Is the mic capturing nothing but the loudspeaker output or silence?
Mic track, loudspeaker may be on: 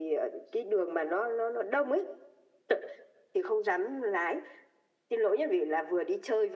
Yes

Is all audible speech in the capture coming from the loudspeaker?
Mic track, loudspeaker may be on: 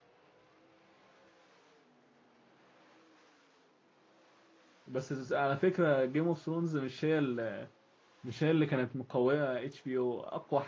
No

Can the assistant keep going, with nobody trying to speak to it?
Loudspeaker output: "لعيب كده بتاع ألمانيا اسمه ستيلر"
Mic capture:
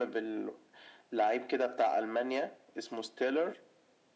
Yes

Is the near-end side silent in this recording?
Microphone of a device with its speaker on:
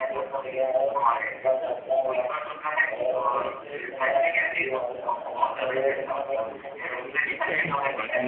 No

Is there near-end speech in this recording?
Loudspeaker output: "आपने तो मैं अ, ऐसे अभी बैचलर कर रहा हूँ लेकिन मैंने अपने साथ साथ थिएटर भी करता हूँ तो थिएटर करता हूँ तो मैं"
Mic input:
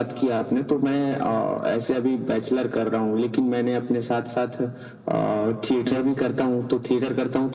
No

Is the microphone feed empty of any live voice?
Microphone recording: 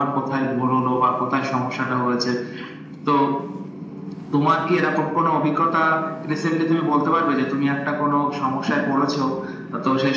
Yes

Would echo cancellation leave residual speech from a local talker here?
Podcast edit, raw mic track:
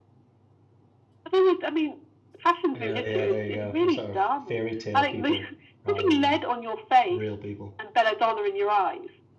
Yes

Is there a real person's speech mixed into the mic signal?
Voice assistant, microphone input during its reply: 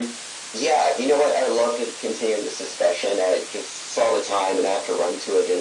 No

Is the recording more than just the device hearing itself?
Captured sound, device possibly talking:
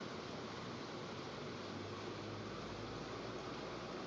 No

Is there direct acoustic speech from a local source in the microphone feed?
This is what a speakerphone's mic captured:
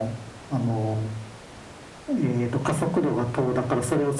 No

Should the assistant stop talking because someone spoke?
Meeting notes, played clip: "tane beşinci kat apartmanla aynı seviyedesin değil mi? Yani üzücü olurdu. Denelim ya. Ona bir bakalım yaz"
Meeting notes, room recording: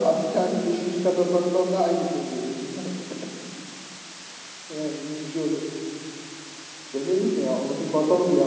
No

